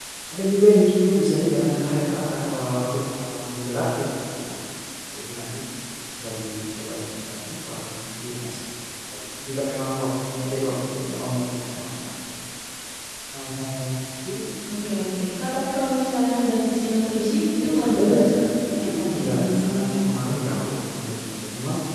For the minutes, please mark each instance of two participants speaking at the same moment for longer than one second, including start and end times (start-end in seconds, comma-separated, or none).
18.8-20.0